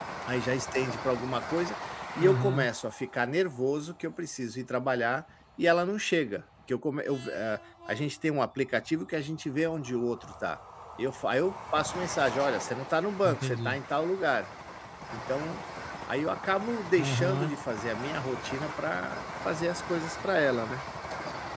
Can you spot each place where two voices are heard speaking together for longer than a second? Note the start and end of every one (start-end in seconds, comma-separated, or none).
none